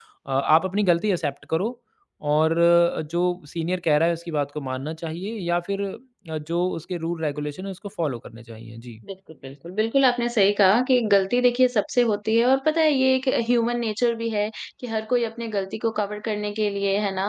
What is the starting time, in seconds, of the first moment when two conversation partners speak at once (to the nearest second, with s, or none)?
none